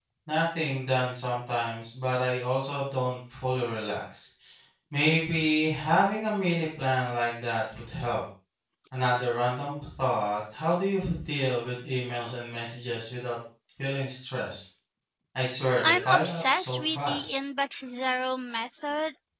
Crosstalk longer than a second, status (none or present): present